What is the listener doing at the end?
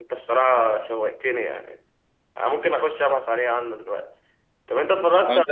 listening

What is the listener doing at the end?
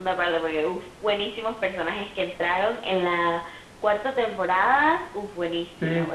listening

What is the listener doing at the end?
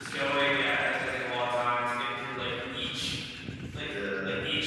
listening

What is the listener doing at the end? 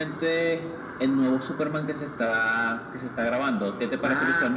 taking over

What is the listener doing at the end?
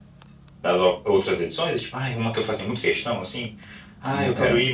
listening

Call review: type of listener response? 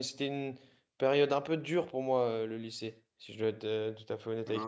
taking over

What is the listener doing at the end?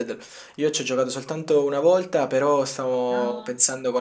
listening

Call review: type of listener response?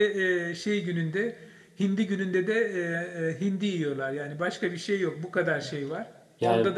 listening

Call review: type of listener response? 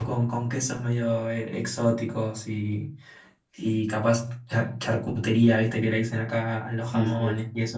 listening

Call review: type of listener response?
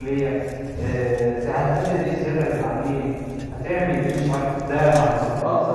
taking over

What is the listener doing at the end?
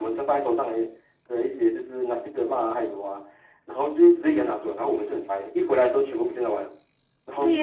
taking over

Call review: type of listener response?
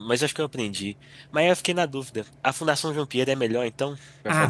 taking over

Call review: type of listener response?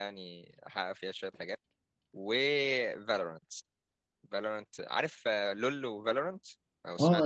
taking over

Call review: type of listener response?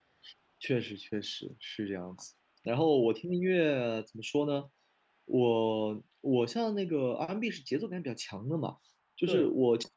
listening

